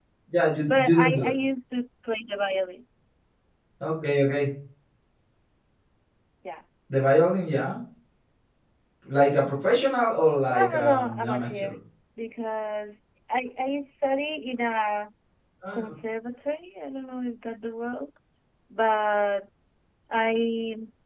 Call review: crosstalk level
present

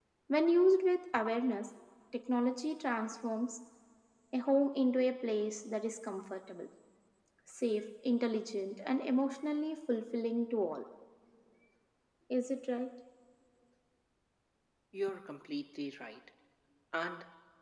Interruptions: none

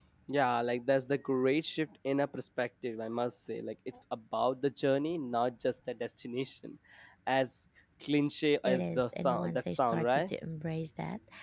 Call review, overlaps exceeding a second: present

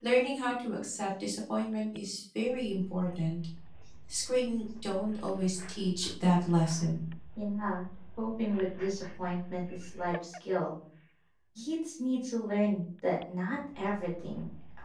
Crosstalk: none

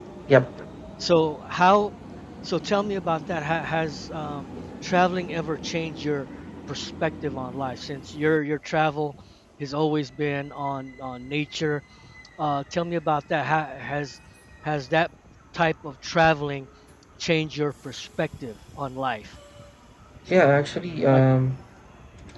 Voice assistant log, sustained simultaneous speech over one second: none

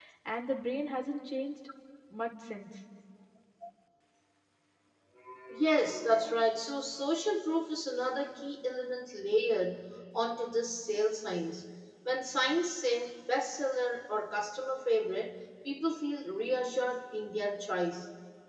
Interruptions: none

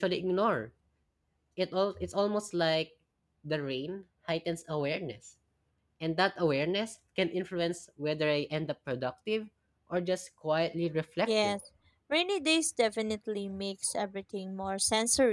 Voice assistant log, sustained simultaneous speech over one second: none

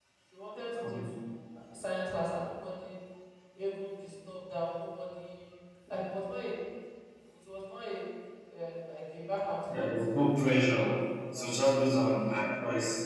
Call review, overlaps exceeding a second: none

